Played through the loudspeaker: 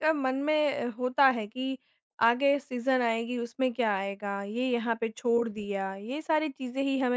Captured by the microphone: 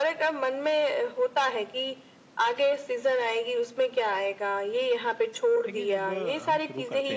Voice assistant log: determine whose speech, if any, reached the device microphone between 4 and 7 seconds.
both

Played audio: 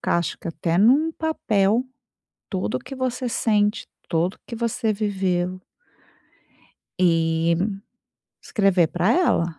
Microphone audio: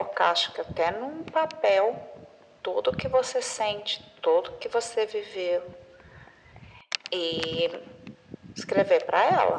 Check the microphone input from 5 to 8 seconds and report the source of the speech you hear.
echo only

